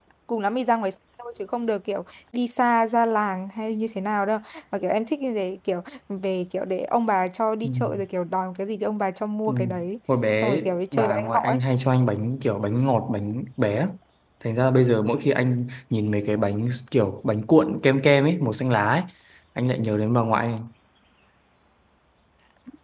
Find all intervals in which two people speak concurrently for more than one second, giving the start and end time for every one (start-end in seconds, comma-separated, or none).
10.4-11.6